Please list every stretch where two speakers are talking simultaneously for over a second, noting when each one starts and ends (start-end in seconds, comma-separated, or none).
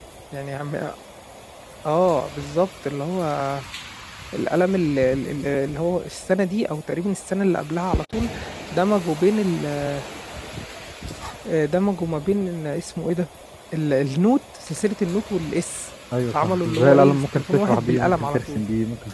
16.3-18.6